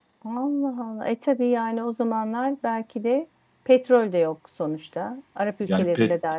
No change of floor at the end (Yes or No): No